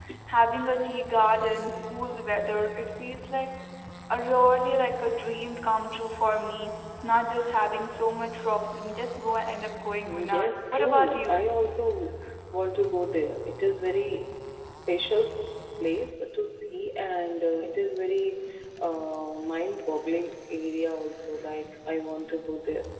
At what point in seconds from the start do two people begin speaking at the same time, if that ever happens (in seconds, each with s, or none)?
10.0 s